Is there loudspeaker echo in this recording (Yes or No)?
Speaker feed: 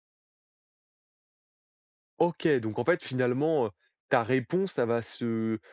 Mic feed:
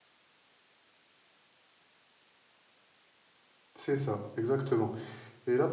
No